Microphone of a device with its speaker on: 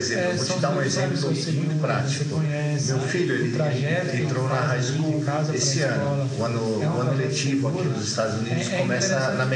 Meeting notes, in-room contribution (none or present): present